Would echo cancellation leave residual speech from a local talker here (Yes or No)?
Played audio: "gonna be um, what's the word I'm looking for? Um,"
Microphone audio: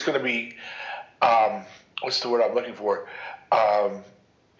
No